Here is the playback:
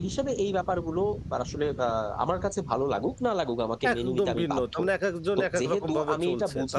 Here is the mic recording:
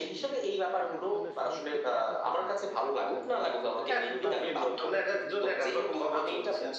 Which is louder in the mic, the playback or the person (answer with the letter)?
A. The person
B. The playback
B